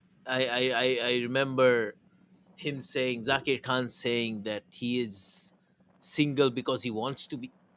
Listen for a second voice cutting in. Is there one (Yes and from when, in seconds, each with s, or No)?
No